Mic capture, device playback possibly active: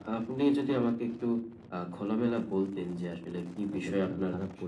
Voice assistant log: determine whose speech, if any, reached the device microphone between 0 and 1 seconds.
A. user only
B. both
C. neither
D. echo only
D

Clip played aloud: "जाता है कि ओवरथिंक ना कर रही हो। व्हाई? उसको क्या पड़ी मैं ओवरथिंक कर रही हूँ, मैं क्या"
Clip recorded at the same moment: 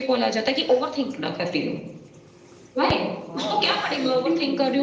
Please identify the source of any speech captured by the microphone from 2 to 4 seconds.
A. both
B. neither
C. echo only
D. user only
A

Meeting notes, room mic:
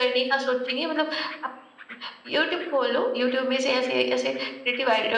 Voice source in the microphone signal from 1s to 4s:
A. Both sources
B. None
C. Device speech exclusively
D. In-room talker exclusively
C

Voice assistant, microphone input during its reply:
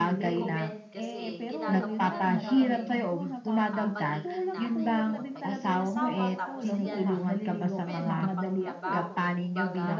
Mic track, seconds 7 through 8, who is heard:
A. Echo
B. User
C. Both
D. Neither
C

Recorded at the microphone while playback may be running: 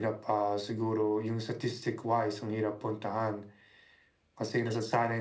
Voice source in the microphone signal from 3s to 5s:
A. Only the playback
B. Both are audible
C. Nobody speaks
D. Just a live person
D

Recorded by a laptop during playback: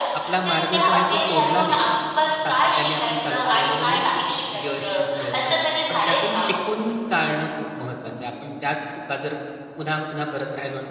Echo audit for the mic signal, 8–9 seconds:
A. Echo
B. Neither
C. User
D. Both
C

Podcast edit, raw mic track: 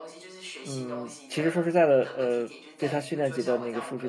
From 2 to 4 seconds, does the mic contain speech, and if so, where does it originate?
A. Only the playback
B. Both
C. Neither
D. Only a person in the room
B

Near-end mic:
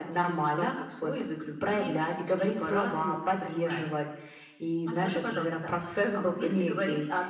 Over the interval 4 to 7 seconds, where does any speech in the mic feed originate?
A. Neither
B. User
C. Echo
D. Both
C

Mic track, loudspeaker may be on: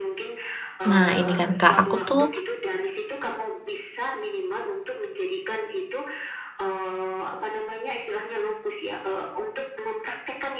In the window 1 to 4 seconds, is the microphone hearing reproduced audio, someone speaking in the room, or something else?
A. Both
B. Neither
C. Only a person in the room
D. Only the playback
A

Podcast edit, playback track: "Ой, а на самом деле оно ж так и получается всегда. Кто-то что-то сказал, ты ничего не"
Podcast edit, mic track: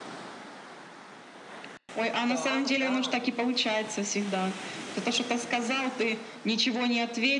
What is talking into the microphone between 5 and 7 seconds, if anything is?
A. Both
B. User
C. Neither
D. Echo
D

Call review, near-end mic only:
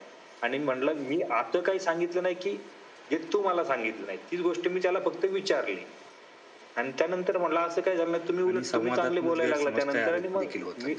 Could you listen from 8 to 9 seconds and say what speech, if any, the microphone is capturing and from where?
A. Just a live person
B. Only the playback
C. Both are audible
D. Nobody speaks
C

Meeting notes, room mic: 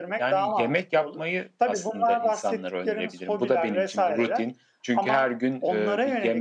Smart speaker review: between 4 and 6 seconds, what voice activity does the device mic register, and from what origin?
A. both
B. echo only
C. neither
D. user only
B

